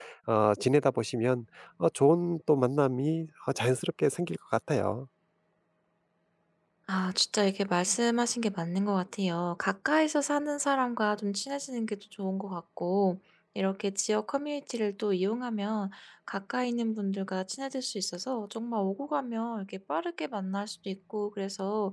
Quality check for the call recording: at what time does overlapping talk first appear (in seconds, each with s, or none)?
none